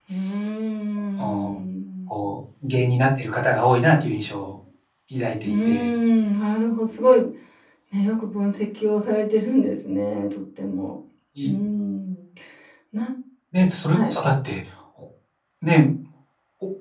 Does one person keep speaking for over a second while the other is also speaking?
No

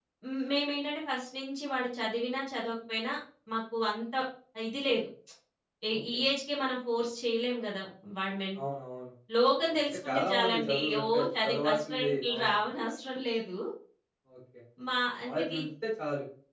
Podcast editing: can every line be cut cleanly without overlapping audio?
No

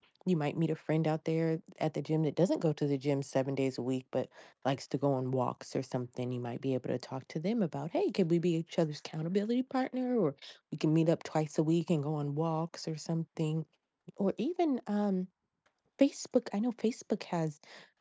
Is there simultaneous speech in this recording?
No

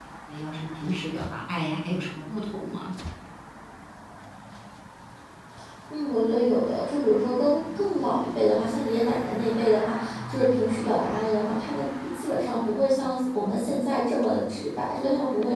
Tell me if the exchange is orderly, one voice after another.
Yes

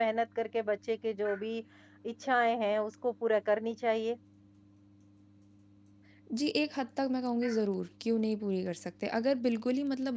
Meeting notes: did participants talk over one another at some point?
No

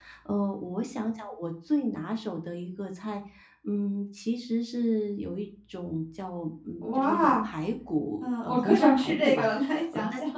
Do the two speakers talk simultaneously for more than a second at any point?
Yes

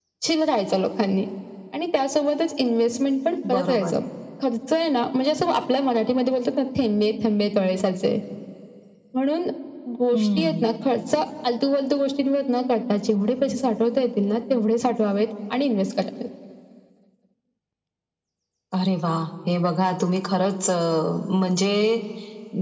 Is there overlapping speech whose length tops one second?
No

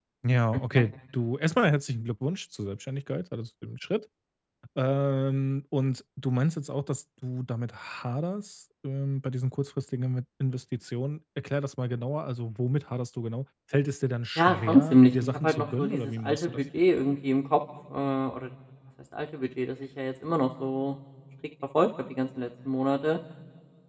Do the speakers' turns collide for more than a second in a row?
Yes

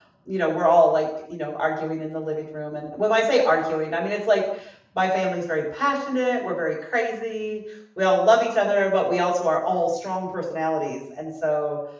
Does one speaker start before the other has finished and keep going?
No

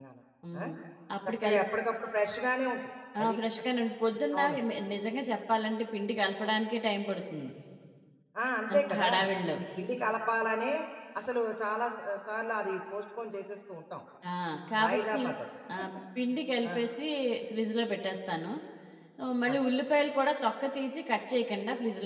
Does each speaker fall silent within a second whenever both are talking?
Yes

